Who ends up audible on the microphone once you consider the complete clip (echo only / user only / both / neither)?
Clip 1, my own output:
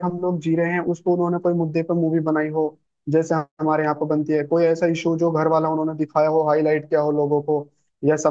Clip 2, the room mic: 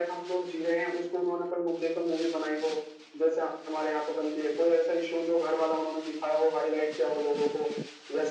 echo only